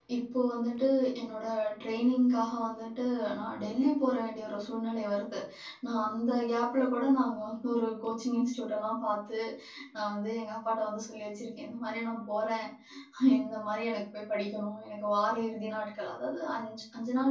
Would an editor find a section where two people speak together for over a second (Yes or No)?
No